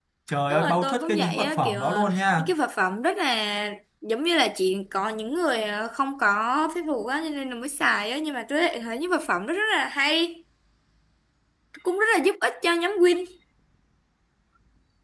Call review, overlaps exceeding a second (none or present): present